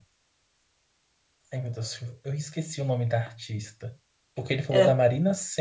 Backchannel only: Yes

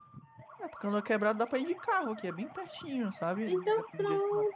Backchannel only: No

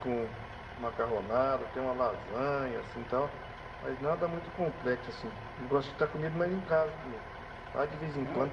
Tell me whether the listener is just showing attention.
Yes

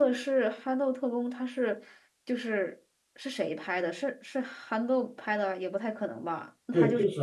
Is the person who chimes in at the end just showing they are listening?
No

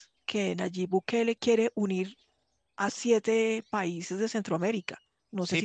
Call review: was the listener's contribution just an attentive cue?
No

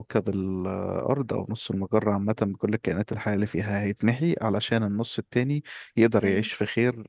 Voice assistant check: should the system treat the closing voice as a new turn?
No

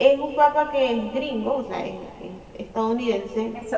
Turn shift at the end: Yes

